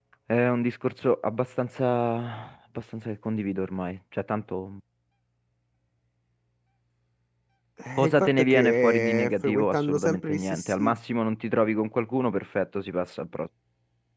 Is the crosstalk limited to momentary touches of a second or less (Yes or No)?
No